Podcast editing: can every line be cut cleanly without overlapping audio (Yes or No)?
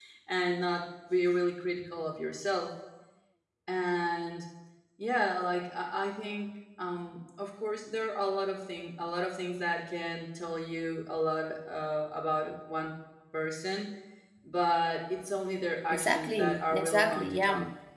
No